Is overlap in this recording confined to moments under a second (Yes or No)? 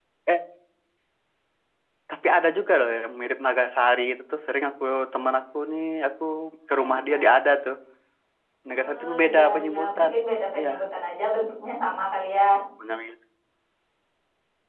No